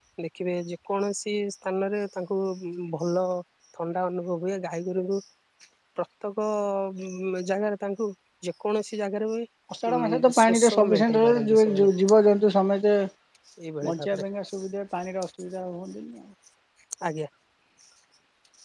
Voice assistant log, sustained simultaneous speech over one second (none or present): present